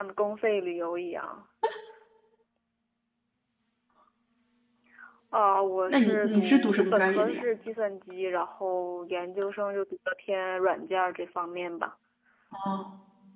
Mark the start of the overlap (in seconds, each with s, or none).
5.9 s